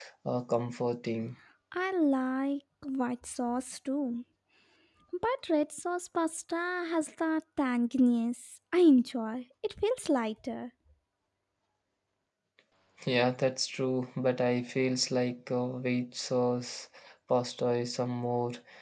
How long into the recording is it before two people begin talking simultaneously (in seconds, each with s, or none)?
none